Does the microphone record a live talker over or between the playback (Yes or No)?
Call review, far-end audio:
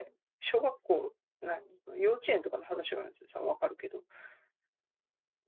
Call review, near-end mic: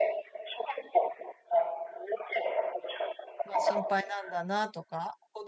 Yes